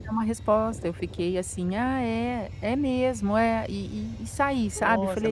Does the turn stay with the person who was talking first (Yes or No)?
No